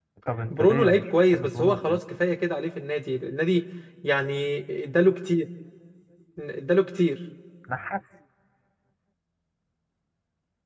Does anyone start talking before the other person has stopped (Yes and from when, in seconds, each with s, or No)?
Yes, from 0.5 s